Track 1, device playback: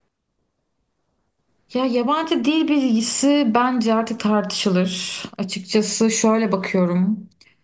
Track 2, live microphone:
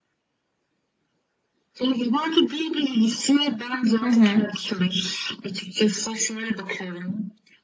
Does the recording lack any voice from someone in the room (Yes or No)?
No